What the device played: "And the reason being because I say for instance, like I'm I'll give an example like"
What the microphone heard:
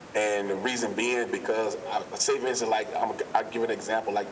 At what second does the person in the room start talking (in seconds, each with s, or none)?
none